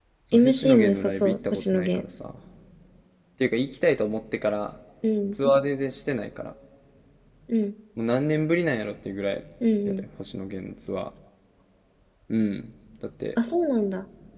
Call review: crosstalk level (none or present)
present